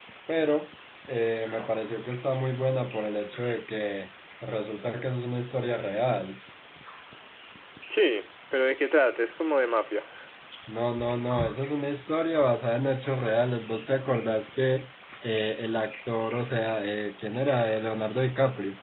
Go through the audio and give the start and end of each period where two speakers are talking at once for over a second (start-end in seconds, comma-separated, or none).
none